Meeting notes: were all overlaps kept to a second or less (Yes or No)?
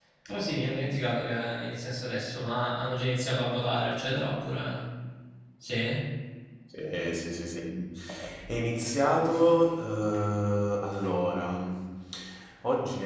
Yes